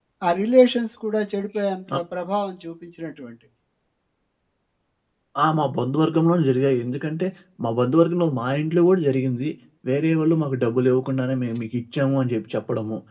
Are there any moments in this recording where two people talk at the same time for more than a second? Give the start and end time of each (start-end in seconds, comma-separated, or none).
none